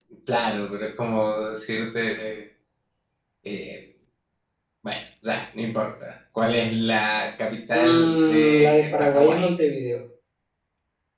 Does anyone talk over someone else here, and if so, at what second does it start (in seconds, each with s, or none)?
7.7 s